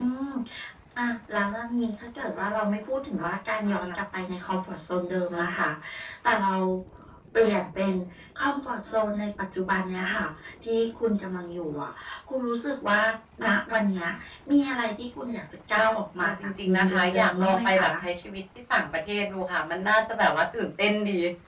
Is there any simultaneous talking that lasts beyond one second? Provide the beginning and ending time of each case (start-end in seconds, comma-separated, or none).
16.2-17.9